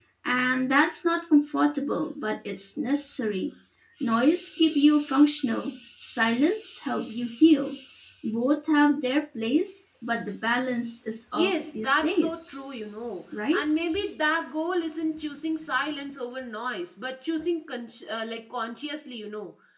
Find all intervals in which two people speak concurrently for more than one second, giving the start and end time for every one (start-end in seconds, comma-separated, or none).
11.3-12.6